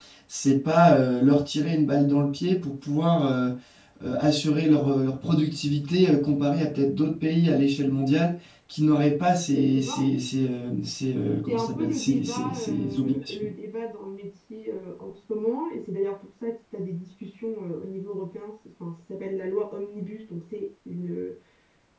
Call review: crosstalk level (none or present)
present